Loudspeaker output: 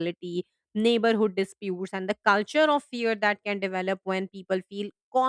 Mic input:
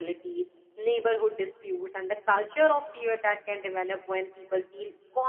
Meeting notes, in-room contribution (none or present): none